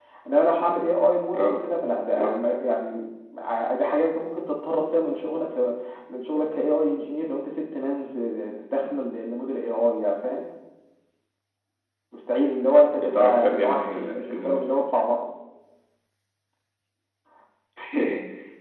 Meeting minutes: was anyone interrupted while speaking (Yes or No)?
Yes